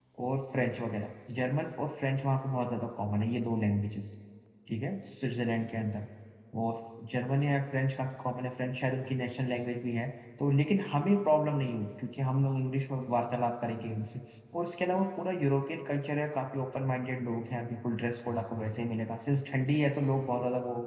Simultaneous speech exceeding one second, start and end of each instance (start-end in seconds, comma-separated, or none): none